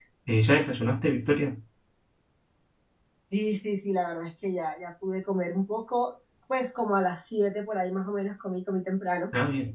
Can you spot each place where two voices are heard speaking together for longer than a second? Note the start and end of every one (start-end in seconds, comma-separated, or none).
none